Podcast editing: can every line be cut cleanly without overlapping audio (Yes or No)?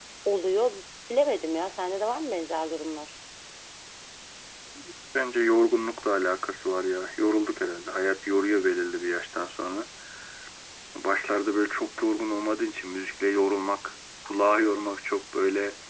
Yes